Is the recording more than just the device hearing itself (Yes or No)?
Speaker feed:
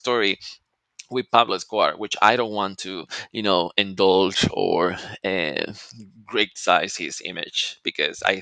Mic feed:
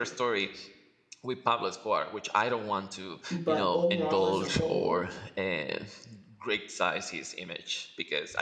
Yes